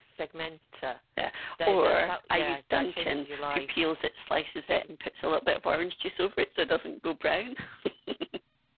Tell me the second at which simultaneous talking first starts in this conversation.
1.7 s

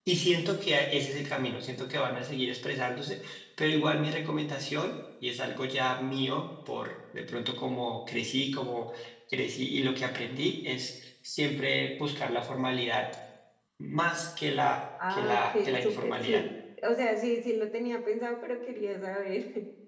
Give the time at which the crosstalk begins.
15.0 s

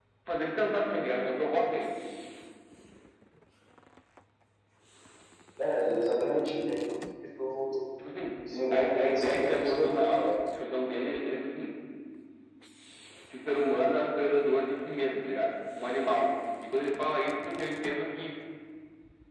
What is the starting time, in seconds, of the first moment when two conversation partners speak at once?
8.7 s

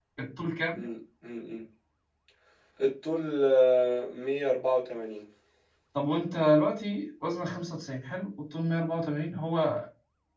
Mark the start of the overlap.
none

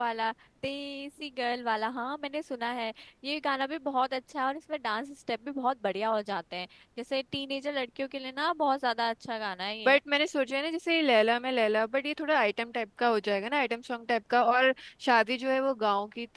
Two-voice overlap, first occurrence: none

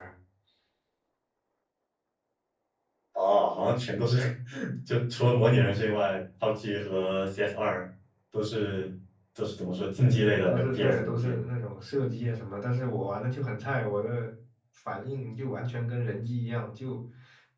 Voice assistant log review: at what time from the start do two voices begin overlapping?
10.1 s

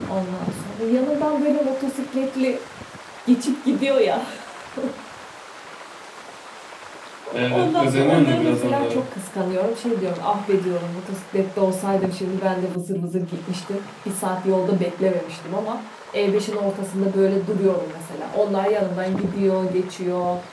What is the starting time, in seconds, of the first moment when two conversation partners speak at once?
7.5 s

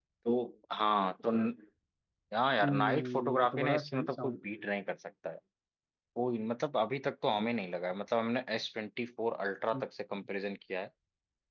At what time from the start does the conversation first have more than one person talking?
2.6 s

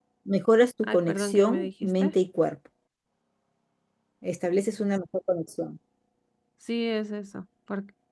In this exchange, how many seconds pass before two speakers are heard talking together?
0.8 s

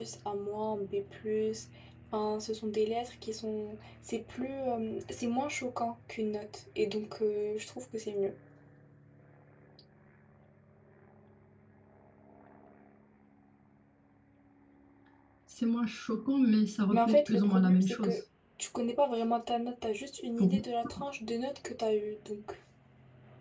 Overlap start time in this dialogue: 16.9 s

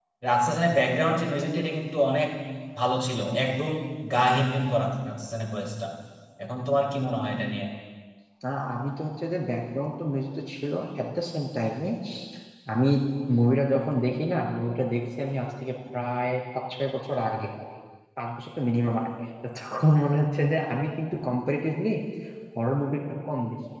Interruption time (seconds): none

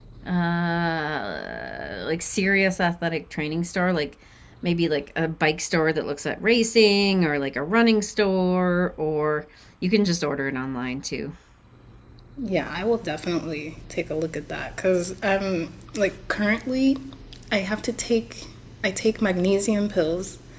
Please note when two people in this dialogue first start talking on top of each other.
none

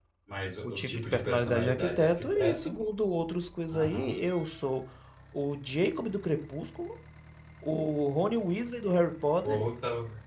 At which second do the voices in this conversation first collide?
0.6 s

